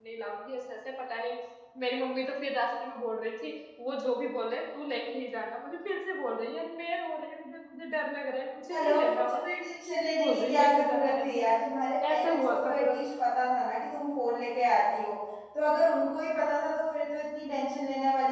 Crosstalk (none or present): present